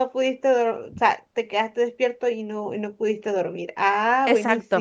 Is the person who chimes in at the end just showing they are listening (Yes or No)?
No